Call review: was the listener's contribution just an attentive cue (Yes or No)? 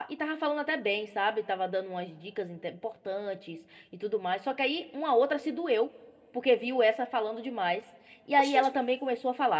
Yes